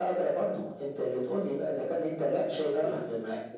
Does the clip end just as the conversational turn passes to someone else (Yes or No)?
No